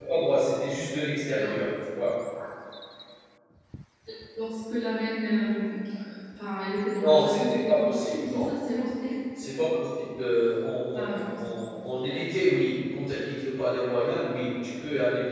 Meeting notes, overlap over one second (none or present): present